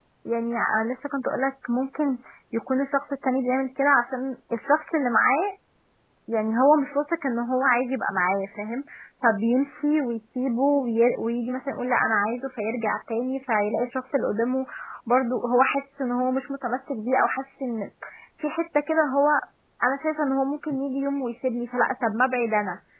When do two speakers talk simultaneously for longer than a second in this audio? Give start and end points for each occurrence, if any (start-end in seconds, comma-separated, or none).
none